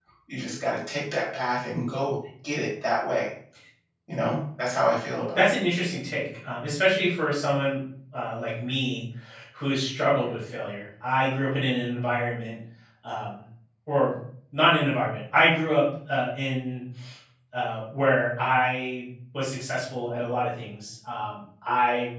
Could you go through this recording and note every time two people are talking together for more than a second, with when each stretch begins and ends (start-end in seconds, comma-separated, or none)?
none